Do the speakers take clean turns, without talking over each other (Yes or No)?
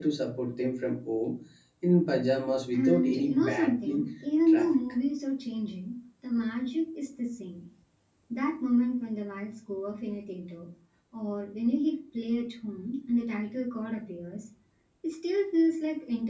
No